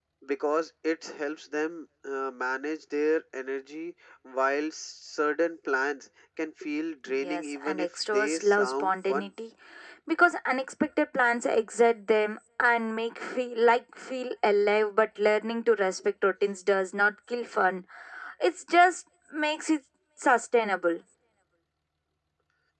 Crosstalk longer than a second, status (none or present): present